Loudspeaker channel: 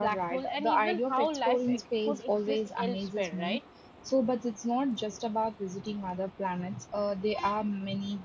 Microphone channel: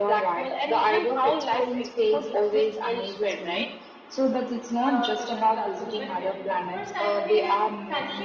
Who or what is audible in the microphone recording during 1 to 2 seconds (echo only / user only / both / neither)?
echo only